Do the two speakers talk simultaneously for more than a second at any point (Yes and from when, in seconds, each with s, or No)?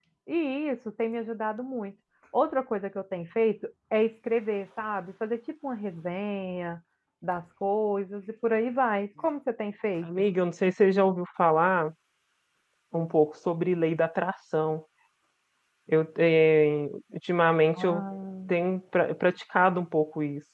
No